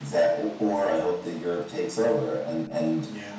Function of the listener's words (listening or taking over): listening